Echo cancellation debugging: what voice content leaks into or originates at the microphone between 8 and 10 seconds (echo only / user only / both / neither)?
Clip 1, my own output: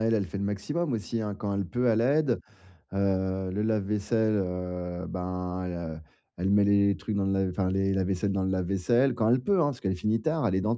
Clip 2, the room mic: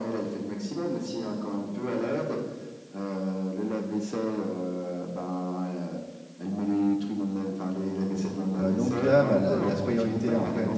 both